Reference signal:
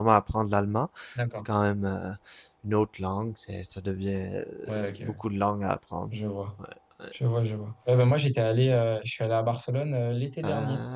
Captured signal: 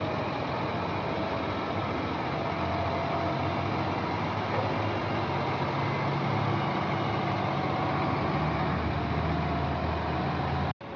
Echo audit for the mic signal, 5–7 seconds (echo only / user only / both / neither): neither